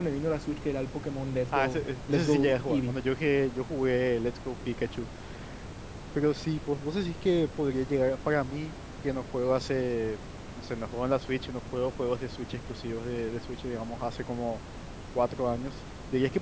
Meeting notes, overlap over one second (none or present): present